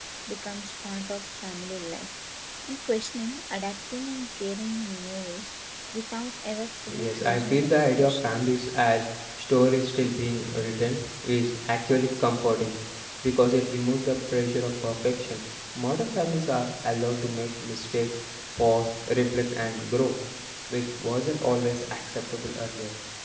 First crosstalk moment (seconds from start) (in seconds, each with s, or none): 6.9 s